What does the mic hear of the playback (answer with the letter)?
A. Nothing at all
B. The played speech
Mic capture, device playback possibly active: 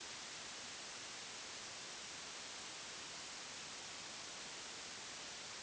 A